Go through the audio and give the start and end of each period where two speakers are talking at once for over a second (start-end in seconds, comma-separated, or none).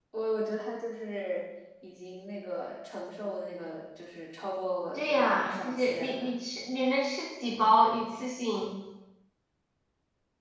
4.9-6.3